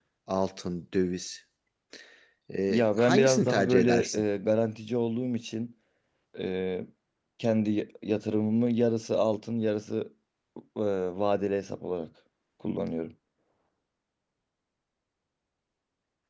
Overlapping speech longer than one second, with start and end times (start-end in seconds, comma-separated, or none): 2.7-4.2